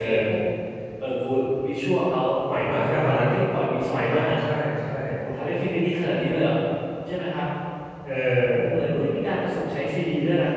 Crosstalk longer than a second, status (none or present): none